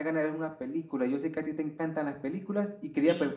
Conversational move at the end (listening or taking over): listening